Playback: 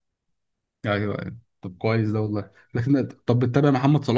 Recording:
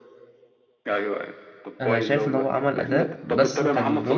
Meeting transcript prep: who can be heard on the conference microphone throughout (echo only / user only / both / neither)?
both